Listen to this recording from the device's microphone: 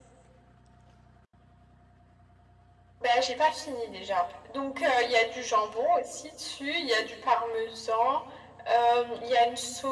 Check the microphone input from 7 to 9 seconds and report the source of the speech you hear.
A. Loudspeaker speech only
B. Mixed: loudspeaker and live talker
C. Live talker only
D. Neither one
A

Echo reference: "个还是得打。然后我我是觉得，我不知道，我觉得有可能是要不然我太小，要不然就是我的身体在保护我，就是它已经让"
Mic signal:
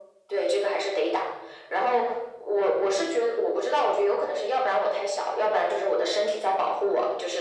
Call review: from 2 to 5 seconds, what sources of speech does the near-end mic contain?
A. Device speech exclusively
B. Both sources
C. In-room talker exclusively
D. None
A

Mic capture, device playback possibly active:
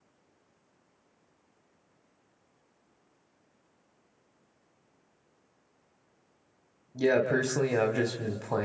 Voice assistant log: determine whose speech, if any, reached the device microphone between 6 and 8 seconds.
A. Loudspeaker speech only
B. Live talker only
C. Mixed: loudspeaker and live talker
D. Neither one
B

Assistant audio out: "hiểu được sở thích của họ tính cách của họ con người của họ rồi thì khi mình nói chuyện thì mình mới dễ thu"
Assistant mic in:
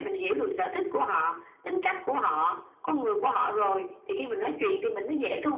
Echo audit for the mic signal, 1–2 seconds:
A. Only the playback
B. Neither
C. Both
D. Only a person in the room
A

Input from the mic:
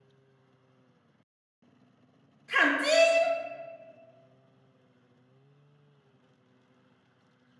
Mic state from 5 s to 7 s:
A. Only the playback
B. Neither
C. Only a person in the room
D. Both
B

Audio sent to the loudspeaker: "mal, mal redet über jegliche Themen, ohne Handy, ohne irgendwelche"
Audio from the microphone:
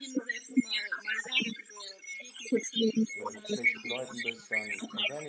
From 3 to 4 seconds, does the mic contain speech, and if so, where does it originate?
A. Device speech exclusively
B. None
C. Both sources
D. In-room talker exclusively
C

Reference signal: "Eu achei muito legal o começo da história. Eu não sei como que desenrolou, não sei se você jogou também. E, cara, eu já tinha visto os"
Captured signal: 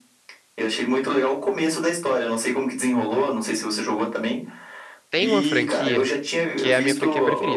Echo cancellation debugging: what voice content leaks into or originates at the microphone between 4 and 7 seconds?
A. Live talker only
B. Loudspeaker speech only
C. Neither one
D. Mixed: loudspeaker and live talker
D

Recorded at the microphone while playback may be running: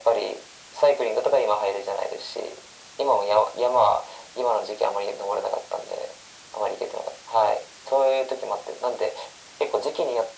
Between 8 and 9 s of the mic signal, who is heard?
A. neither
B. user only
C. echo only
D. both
C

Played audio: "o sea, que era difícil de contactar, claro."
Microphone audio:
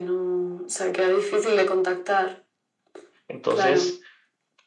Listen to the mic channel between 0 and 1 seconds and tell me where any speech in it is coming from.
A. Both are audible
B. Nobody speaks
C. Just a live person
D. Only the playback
D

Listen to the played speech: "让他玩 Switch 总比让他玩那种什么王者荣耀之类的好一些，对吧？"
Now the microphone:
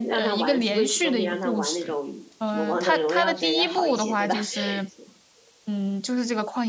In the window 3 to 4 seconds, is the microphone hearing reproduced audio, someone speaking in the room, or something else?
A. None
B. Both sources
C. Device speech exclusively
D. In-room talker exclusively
B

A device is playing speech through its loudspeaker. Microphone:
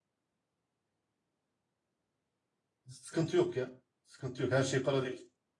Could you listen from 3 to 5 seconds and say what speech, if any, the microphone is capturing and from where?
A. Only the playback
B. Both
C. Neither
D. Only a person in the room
D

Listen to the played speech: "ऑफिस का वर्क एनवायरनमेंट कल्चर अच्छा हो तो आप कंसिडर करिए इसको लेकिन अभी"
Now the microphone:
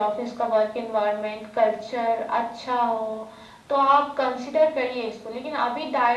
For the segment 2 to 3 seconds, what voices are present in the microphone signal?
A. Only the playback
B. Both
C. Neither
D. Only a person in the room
A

